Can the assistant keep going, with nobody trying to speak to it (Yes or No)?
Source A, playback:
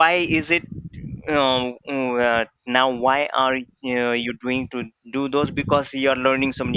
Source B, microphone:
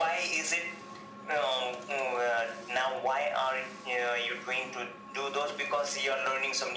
Yes